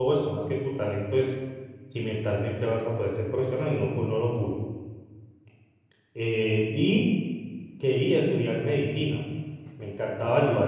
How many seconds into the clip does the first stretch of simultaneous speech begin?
none

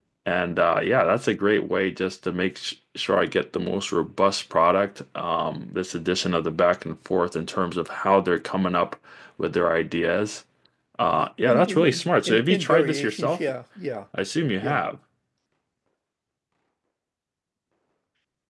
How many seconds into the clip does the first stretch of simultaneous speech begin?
11.4 s

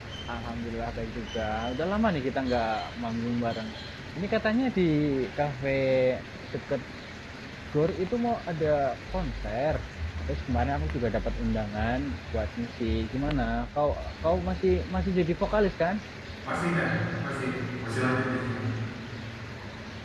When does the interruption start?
none

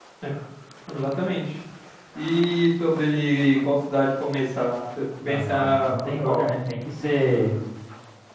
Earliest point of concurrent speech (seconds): 5.2 s

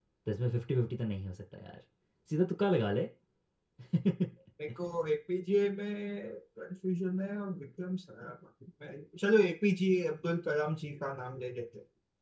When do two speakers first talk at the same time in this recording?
none

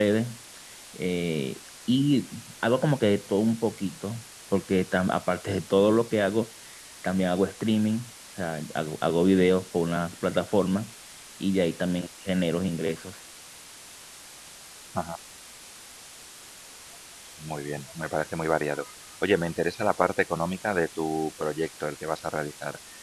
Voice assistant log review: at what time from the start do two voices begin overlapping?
none

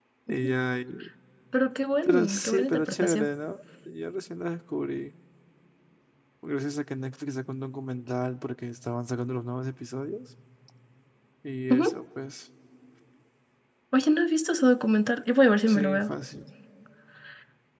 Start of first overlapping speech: 2.0 s

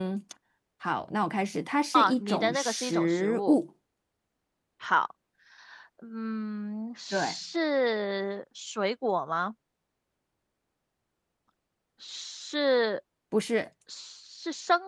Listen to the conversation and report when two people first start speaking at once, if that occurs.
1.9 s

